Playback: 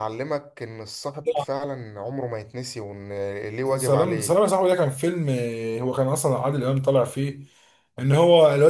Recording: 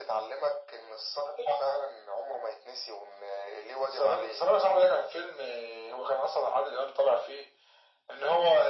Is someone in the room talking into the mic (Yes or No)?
No